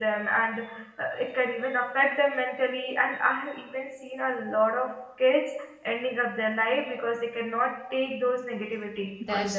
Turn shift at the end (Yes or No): Yes